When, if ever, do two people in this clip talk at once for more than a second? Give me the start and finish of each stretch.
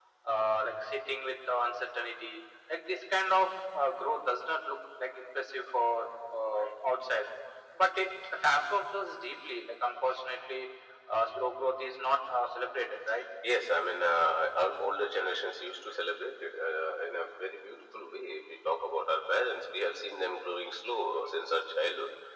none

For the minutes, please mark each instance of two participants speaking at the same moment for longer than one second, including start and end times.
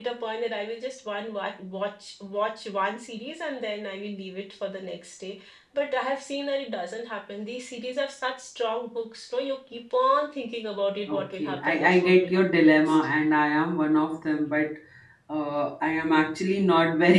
11.1-13.1

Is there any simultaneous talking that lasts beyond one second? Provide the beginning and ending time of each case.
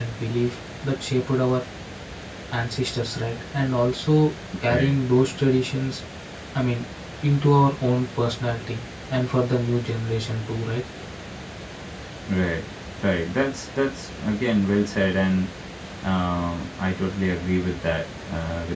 none

